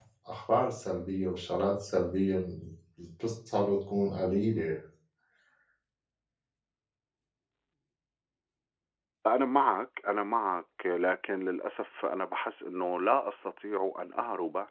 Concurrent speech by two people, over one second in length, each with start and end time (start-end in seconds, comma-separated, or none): none